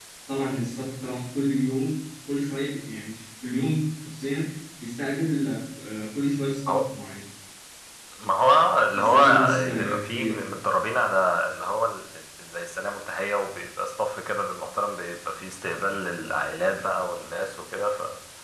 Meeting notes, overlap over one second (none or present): present